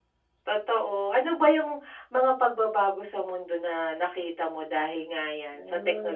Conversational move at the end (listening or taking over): taking over